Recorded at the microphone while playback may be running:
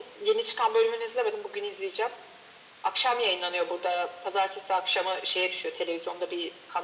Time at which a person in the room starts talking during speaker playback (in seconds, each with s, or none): none